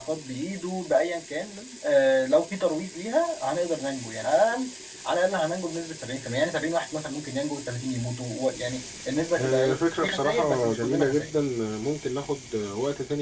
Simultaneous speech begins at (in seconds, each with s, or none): 9.4 s